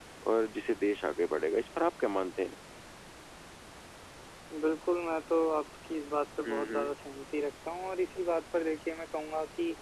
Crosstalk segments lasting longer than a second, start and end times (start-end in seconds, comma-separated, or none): none